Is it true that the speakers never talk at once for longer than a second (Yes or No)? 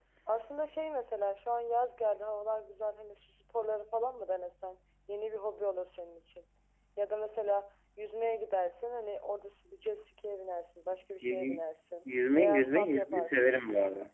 No